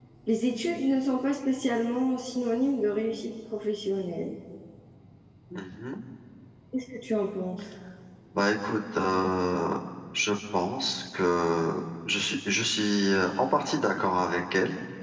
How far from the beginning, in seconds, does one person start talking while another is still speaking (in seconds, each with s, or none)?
none